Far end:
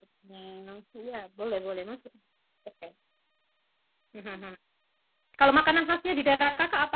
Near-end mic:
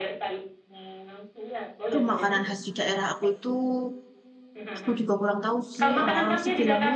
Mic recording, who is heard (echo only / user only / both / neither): both